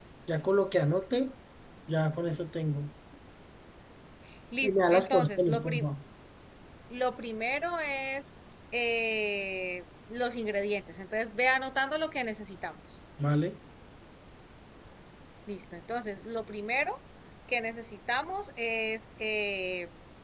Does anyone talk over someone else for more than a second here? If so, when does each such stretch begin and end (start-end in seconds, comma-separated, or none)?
4.6-5.8